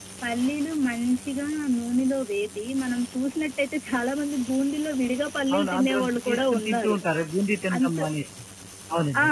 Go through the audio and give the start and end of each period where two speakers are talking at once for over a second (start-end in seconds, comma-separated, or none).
5.5-7.0